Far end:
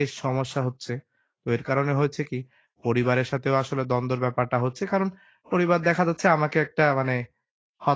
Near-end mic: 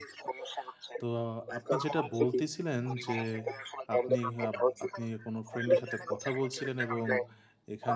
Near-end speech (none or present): present